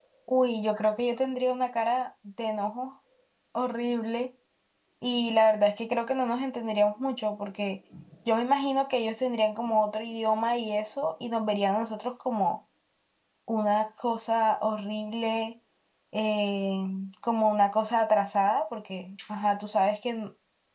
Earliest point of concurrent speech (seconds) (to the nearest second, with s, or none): none